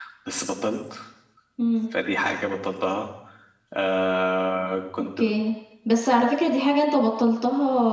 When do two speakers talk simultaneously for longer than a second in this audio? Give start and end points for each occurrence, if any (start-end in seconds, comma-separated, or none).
none